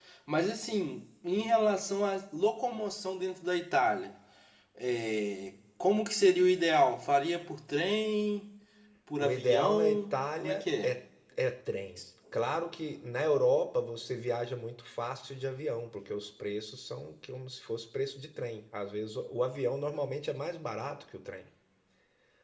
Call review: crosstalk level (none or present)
present